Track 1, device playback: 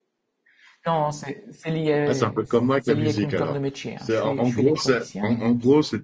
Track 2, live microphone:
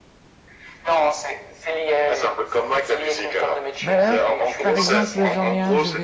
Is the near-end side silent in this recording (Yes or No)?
No